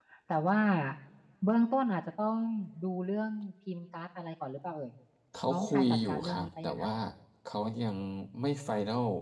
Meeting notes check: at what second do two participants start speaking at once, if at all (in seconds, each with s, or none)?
5.5 s